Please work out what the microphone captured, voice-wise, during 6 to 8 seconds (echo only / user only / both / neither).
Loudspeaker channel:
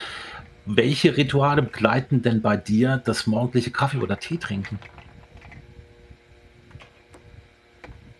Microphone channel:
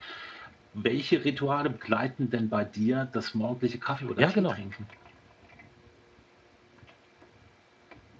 neither